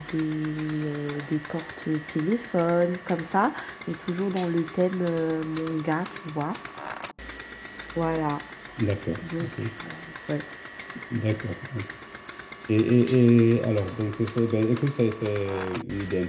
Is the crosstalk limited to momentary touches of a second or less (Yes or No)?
Yes